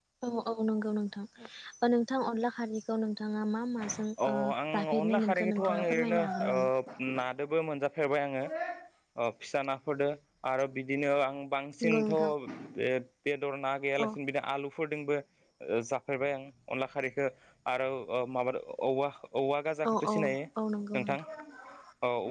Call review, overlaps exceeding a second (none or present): present